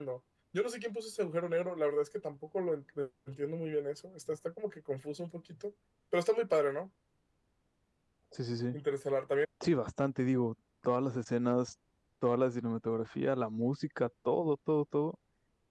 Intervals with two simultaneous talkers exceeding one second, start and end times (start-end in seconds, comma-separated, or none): none